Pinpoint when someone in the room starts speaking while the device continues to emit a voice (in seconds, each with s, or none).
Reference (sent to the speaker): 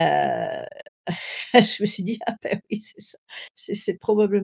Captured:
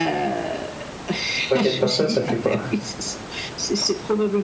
1.5 s